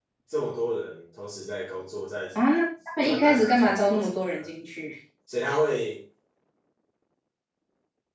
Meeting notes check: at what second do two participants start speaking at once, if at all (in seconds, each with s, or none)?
3.0 s